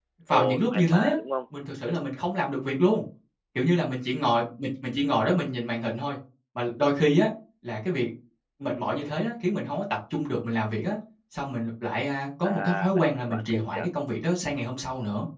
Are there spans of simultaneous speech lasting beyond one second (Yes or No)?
Yes